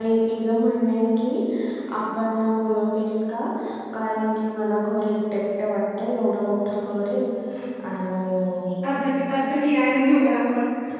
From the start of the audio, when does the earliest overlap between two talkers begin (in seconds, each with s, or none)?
none